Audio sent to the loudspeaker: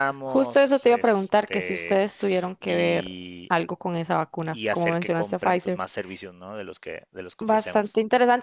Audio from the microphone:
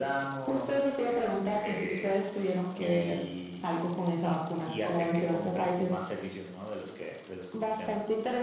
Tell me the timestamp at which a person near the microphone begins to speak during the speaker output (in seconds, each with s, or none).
none